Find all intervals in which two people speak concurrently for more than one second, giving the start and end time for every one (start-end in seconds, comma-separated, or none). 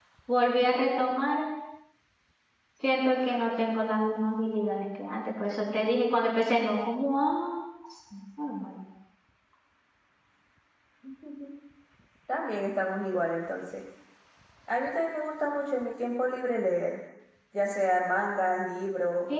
none